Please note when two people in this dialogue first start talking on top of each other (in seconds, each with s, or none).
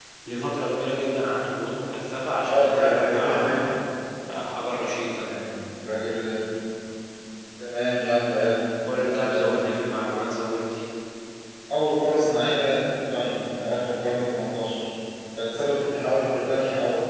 2.5 s